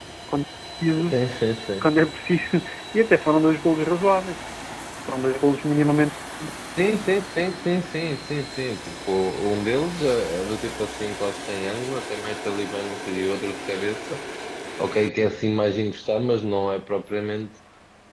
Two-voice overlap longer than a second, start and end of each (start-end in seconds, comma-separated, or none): none